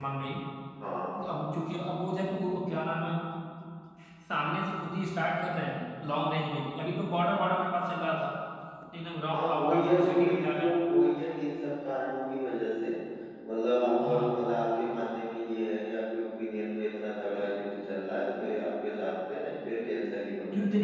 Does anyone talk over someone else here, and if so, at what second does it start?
9.3 s

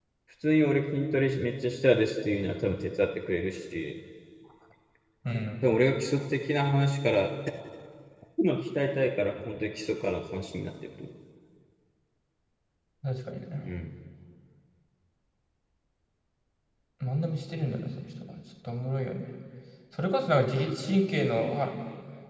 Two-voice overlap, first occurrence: none

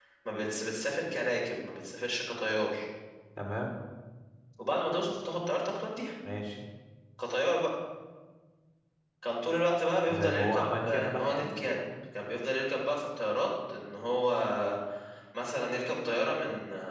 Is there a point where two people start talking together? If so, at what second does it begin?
10.1 s

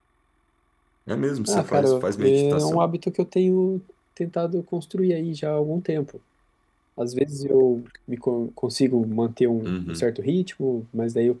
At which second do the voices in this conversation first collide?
1.5 s

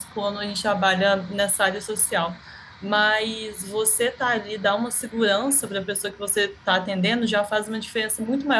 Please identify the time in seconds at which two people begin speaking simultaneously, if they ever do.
none

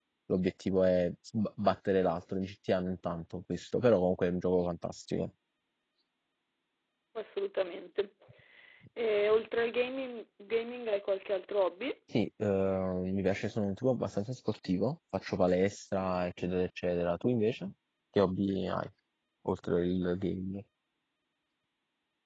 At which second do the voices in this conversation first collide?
none

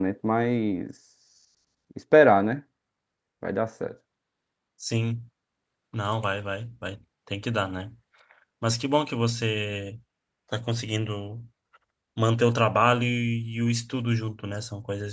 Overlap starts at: none

